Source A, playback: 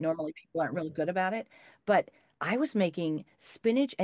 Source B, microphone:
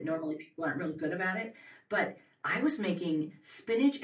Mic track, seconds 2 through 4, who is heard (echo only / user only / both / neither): echo only